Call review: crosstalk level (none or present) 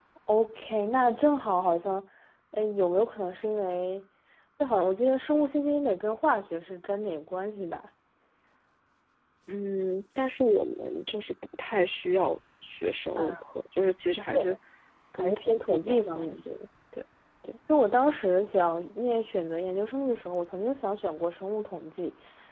present